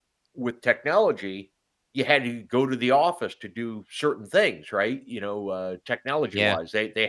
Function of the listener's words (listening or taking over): listening